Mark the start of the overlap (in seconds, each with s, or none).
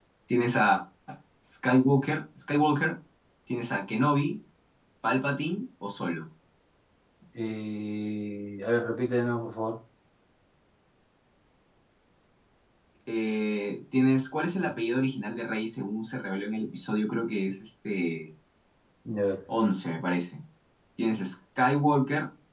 none